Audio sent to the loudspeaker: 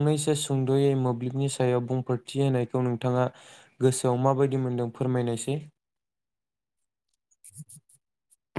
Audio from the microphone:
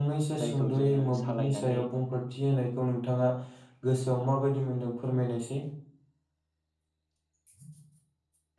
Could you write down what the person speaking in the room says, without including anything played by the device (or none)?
जायखौ जोङो सालायनानै